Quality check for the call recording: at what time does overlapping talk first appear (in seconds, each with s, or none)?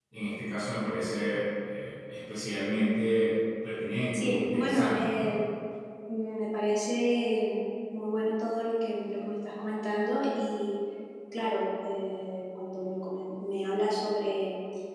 4.1 s